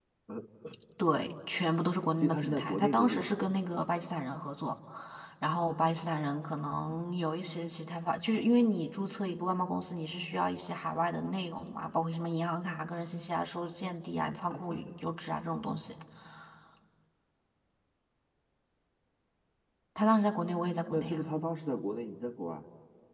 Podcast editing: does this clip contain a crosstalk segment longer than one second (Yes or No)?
Yes